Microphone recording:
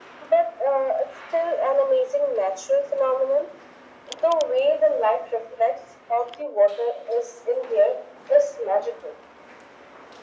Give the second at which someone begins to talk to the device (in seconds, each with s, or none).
none